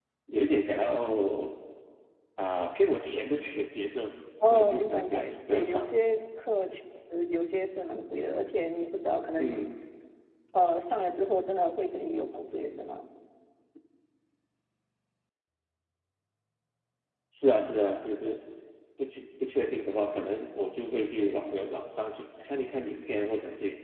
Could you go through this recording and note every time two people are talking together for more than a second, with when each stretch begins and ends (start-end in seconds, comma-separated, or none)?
4.5-5.9